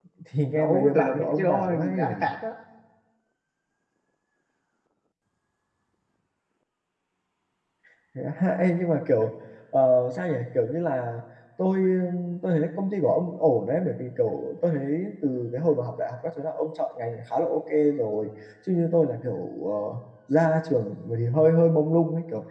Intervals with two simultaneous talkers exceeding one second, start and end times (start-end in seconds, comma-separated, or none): 0.5-2.3